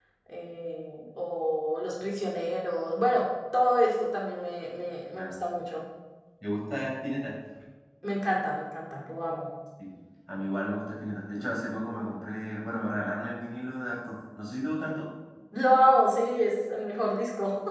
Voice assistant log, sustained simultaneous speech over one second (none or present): none